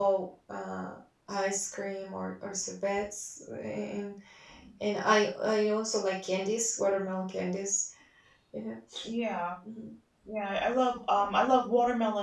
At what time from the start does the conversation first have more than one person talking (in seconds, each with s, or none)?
none